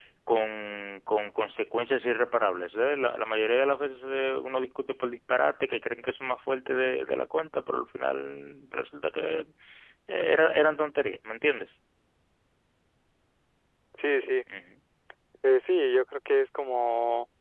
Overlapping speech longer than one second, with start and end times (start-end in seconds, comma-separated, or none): none